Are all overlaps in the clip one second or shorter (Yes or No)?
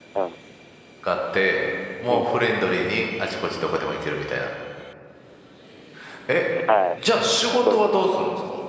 Yes